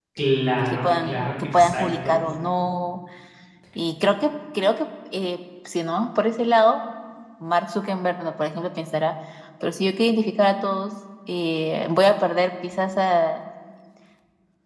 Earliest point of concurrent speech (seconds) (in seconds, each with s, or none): 0.7 s